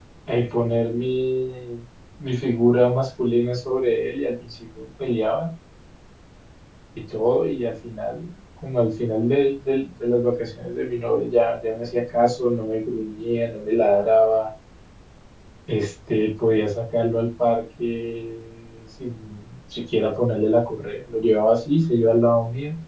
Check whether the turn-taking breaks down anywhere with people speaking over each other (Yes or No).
No